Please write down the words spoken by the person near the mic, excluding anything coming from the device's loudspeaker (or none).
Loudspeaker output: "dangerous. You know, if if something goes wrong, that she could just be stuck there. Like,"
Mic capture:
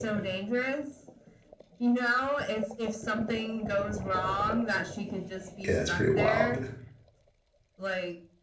Yeah, it's pretty wild.